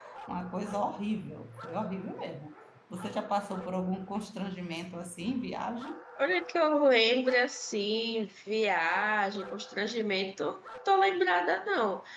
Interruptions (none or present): none